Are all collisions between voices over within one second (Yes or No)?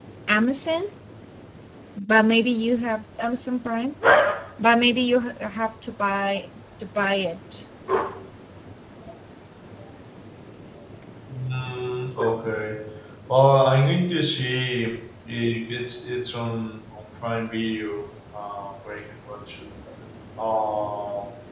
Yes